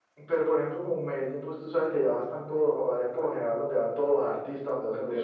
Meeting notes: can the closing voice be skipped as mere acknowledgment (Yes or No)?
No